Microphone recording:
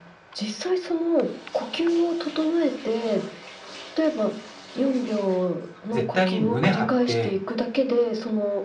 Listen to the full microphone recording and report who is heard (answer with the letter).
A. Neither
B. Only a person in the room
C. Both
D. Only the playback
C